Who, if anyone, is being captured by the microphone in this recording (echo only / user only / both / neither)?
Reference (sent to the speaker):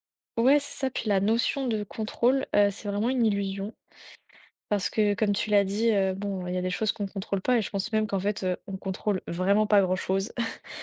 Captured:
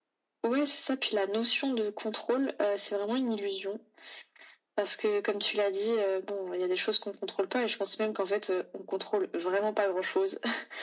echo only